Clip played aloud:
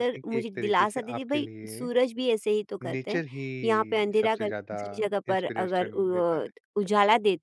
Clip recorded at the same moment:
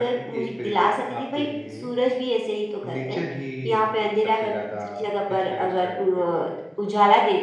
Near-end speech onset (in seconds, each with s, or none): none